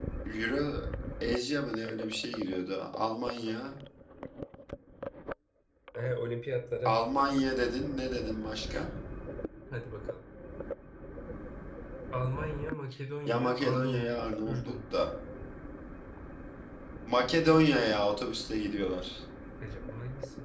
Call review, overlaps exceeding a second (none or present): present